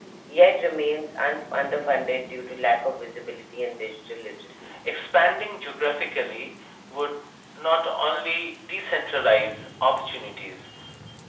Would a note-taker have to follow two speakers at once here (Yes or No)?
No